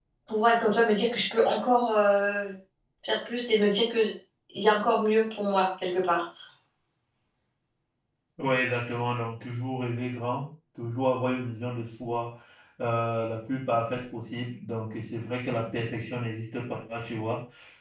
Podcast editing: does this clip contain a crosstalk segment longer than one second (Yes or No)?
No